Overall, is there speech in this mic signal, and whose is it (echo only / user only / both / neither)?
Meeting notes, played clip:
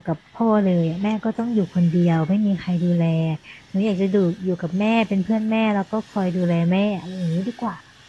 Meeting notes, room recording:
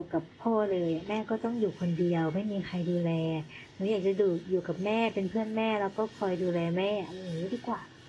echo only